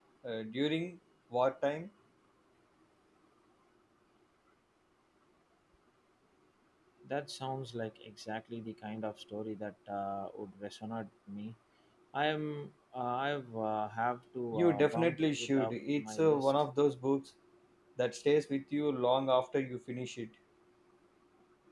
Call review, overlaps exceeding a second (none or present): present